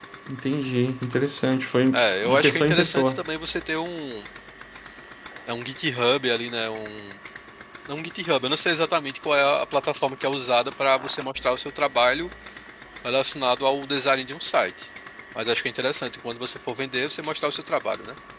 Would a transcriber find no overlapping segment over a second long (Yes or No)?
No